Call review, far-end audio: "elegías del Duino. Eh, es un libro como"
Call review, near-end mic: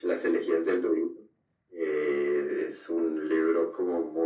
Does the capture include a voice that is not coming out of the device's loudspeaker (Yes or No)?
No